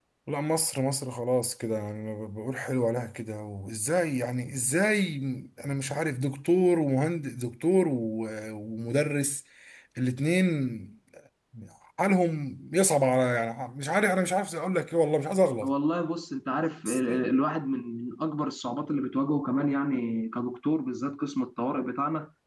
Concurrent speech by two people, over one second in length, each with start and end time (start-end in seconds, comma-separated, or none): none